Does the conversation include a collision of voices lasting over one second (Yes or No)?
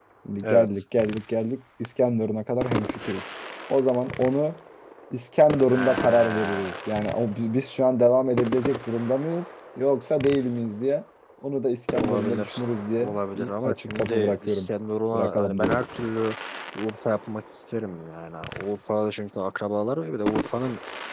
Yes